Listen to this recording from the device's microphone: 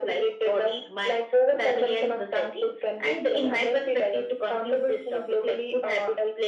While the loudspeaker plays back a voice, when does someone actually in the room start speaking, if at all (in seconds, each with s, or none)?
none